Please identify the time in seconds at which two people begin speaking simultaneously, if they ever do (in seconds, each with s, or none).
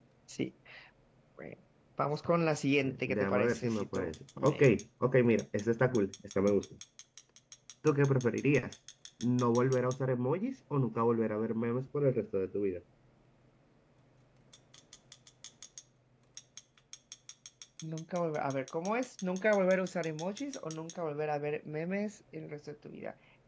2.8 s